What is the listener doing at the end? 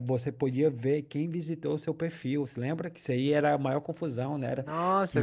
taking over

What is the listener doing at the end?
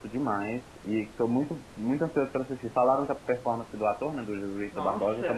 taking over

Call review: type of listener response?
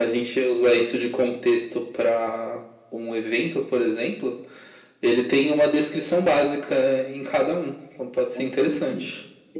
taking over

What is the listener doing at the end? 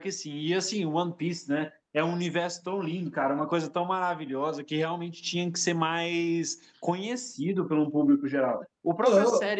listening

